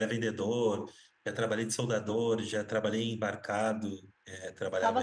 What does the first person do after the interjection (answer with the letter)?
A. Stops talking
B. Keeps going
A